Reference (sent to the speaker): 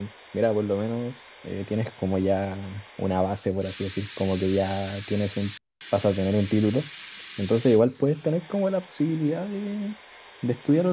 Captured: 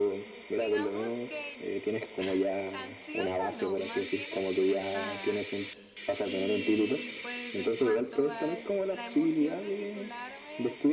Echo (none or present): present